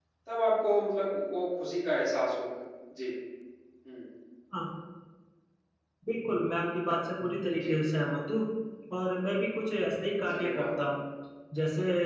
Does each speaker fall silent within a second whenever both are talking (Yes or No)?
Yes